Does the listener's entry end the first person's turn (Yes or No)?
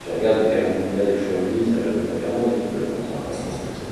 Yes